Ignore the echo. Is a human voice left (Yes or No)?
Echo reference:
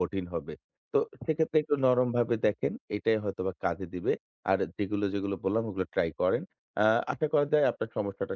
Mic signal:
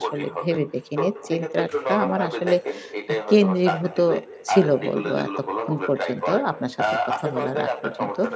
Yes